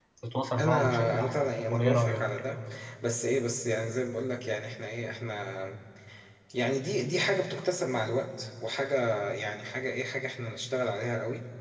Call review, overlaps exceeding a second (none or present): present